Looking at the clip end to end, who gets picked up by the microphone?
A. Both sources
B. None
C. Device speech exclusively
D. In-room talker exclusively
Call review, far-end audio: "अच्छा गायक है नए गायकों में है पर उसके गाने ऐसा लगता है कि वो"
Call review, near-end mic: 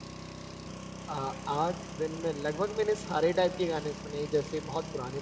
D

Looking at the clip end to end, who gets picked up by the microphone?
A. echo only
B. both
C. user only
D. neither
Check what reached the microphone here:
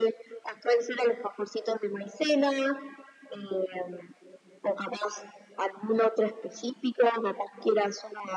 A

